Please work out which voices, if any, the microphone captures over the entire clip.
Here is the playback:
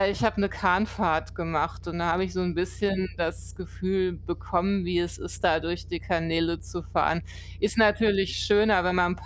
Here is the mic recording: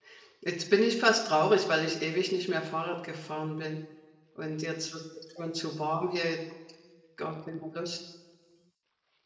user only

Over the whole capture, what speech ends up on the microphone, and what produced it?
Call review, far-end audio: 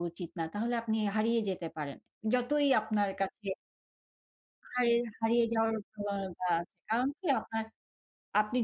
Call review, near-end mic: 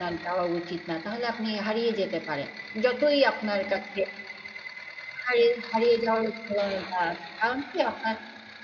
echo only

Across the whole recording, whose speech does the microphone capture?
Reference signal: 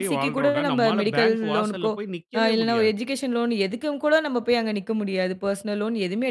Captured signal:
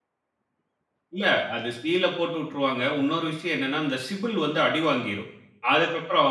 user only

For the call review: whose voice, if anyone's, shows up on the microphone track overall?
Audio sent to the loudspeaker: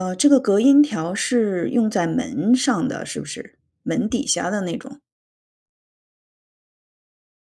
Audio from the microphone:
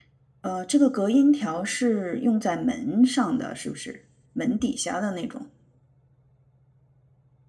echo only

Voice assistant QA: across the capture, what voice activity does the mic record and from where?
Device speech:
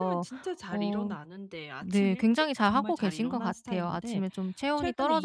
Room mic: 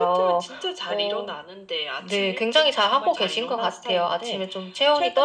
echo only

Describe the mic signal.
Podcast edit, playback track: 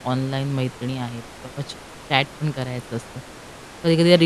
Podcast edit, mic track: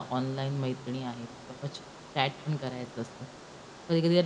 echo only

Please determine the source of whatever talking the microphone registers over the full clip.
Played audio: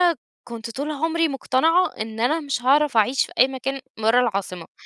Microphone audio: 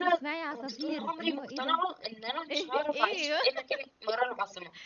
both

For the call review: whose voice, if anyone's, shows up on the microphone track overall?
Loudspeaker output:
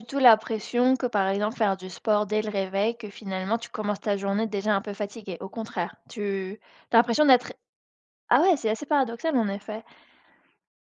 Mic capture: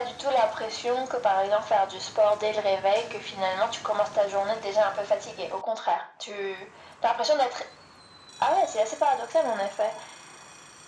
echo only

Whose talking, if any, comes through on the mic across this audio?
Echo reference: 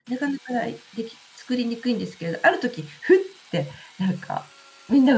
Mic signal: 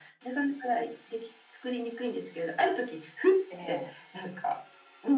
both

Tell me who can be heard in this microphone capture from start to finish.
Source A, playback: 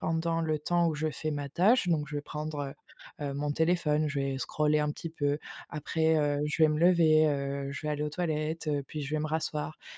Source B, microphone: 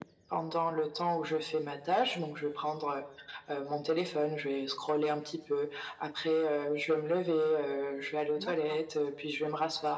both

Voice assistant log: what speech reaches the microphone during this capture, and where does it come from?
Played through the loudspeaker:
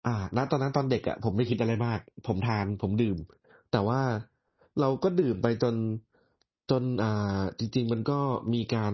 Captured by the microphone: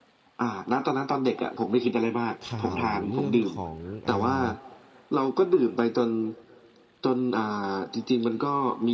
both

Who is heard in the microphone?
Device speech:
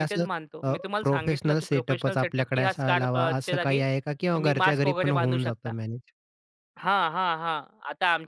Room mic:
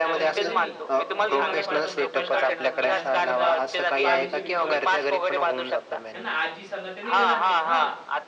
both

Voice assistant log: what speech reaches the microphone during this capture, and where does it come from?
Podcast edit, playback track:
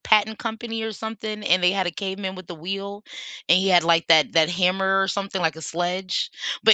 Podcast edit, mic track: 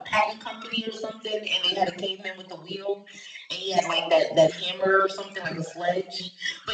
echo only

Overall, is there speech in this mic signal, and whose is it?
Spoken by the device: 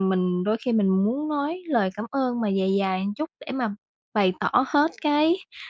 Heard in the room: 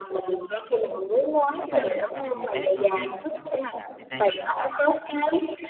both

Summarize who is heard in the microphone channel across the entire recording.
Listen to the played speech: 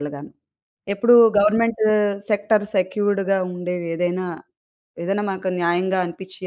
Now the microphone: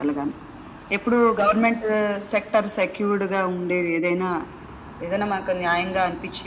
echo only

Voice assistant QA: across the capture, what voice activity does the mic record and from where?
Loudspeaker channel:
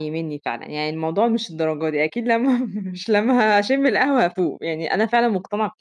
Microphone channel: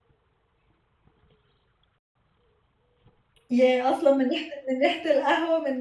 user only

